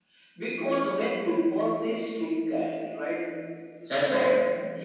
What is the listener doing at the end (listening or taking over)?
listening